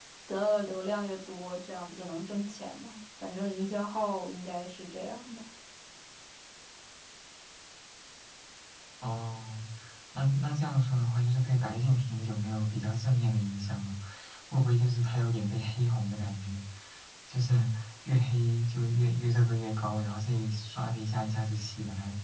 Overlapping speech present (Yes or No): No